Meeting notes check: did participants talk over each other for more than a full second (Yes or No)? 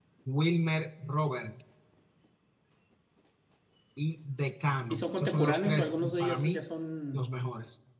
Yes